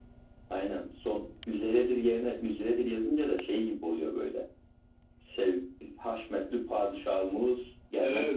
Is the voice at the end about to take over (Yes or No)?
Yes